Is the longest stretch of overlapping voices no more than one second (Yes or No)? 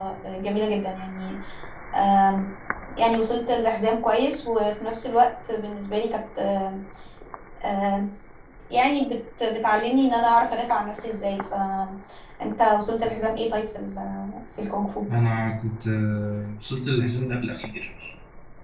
Yes